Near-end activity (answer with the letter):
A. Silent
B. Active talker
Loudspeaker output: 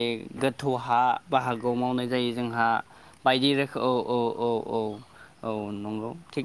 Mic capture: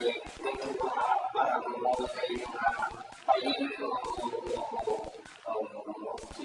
A